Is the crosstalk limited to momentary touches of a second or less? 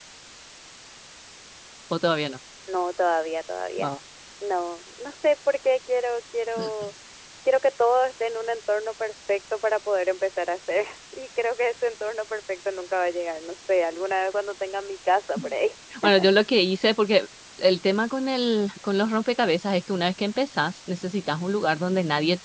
Yes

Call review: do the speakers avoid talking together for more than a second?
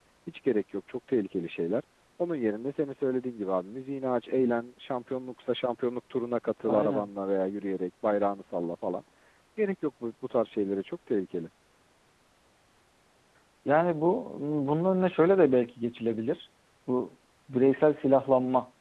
Yes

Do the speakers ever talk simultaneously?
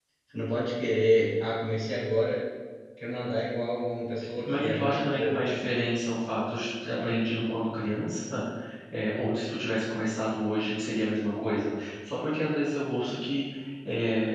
Yes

